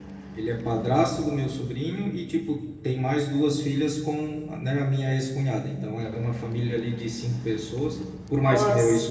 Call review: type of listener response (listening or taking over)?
listening